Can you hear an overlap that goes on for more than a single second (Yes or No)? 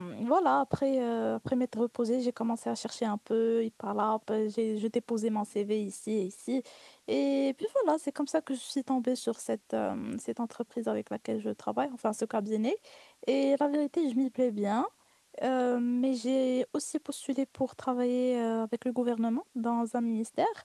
No